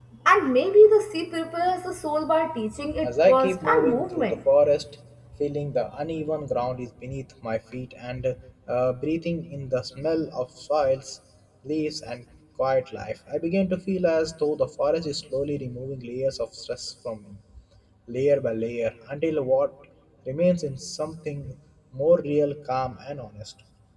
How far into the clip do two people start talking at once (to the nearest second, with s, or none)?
3 s